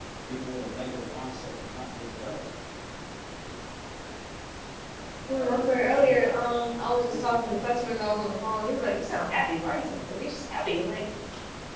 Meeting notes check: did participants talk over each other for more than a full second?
Yes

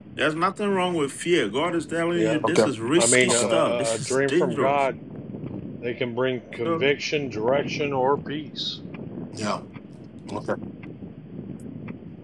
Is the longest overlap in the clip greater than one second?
Yes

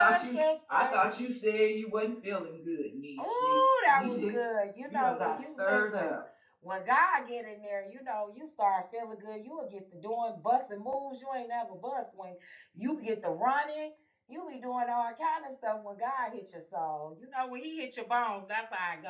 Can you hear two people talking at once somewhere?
Yes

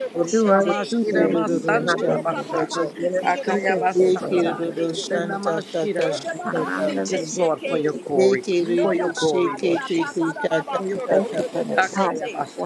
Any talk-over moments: Yes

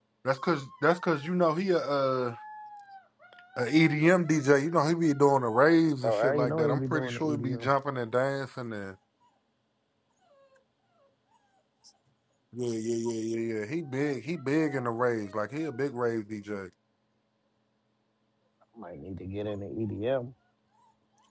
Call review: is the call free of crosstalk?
No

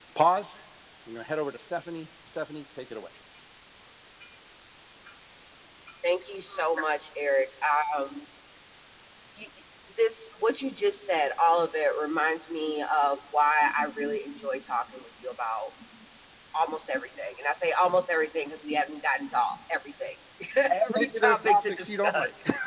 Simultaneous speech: Yes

